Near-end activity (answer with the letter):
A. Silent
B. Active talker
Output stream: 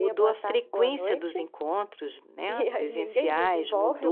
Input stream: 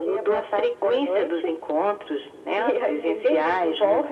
A